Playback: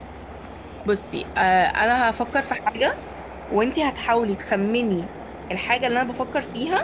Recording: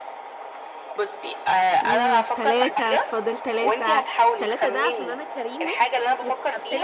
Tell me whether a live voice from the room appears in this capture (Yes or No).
Yes